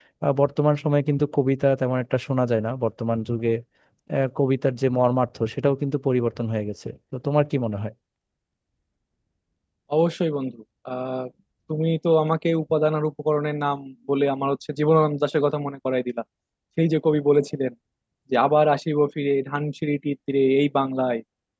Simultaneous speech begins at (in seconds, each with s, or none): none